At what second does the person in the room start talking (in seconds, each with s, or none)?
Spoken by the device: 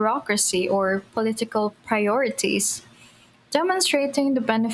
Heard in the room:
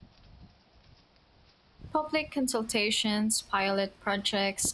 1.9 s